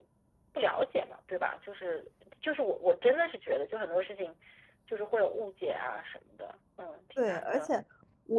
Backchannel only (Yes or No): No